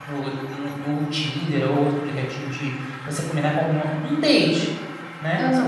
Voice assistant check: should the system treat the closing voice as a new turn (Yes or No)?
Yes